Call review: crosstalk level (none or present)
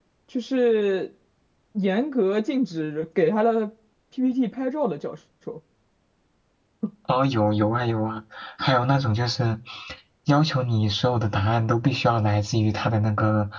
none